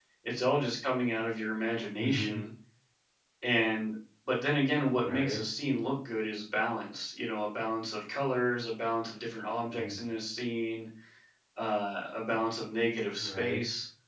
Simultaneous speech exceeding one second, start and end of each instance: none

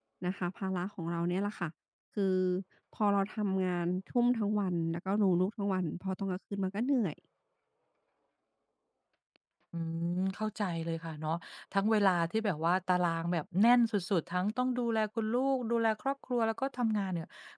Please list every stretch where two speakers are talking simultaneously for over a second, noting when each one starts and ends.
none

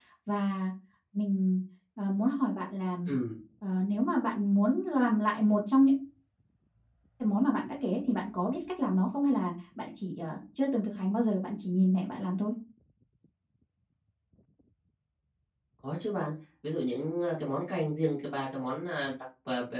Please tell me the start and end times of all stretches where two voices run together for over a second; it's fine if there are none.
none

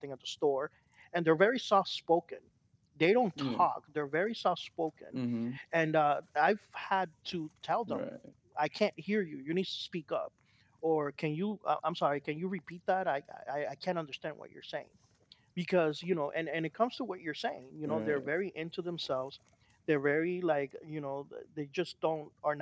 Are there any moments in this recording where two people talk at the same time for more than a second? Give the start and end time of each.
none

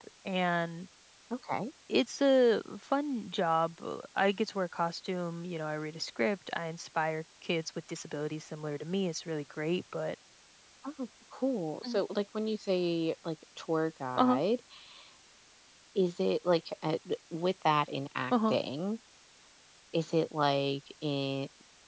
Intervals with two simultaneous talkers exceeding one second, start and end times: none

